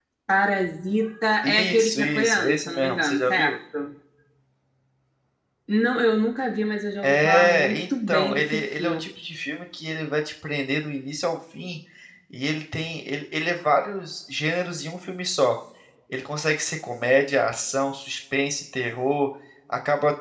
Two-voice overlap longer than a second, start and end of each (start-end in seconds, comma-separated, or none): 1.4-3.5, 7.0-9.0